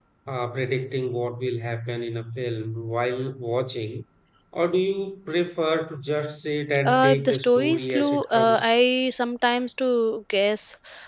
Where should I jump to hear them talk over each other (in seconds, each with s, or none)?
6.8 s